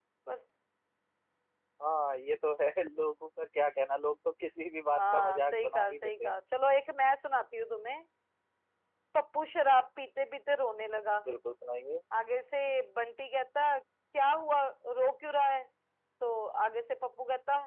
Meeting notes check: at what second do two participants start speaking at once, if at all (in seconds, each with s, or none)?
4.9 s